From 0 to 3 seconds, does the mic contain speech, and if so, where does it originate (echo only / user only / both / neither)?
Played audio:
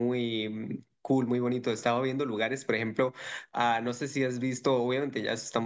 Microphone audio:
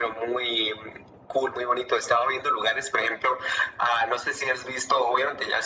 echo only